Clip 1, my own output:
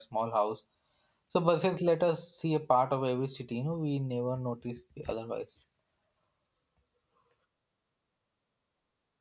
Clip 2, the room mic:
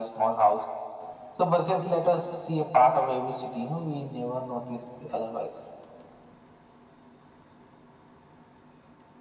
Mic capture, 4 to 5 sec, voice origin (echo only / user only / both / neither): echo only